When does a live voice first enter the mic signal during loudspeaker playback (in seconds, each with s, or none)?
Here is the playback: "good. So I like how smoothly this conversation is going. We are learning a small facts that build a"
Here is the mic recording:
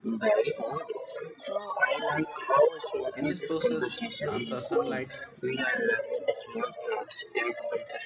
3.1 s